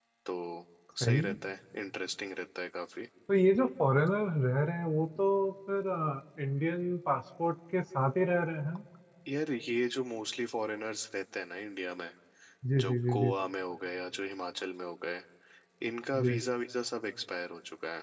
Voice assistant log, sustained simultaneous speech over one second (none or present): none